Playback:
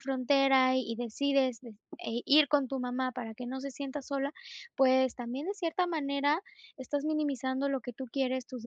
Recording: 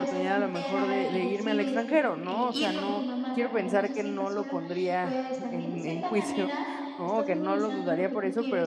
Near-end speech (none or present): present